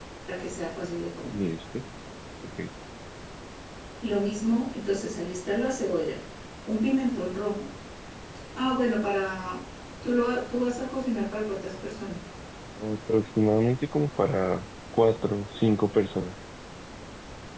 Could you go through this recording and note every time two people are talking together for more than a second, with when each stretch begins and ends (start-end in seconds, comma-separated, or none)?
none